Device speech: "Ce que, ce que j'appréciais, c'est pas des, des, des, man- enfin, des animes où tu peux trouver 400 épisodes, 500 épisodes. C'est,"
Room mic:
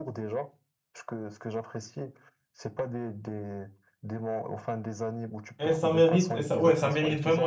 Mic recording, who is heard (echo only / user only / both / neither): both